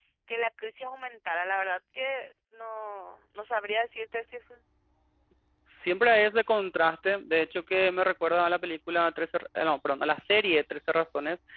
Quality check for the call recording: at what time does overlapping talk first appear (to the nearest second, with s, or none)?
none